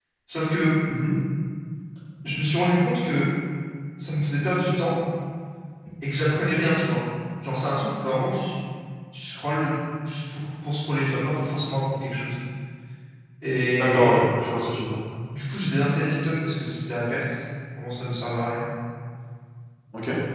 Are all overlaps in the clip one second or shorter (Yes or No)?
Yes